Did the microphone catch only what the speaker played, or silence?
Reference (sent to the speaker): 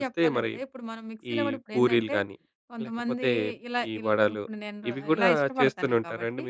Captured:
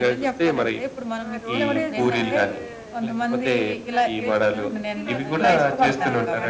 No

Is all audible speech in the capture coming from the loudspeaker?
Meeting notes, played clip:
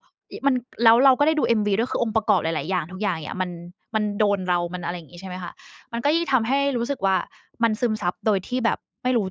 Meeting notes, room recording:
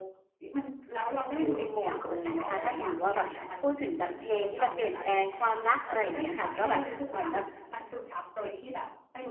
No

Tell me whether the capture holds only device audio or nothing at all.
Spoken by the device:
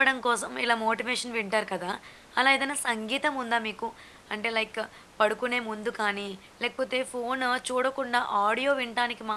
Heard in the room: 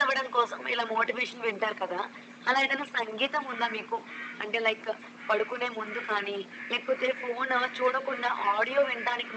Yes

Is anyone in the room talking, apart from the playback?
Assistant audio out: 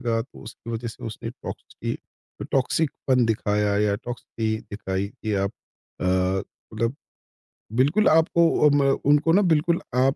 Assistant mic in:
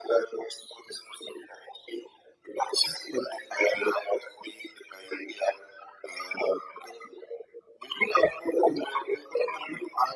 No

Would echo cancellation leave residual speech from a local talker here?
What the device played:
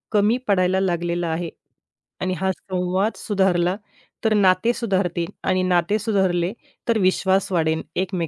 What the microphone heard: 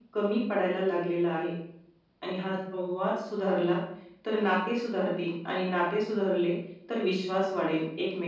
No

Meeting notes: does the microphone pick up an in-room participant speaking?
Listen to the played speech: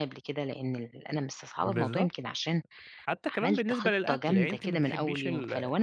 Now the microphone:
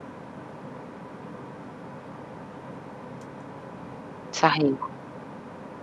Yes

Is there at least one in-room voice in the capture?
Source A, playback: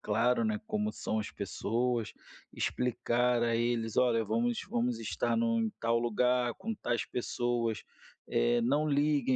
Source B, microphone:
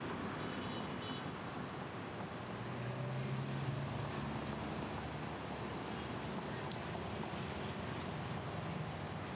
No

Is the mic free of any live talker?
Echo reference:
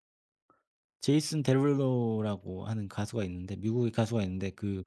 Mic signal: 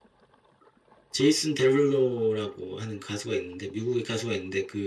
Yes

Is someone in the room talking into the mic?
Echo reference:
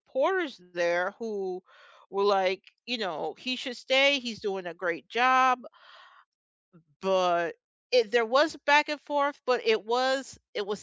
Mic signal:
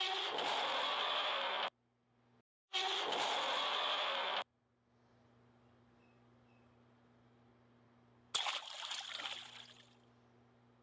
No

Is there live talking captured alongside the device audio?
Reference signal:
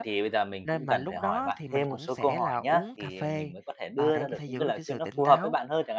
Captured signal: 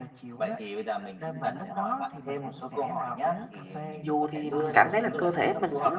Yes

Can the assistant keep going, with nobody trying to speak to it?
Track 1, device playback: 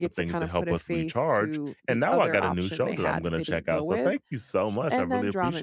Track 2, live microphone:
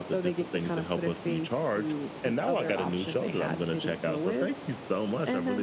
Yes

